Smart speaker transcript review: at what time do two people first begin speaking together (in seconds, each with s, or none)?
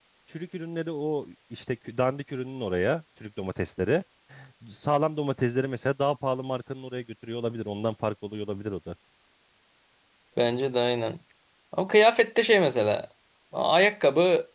none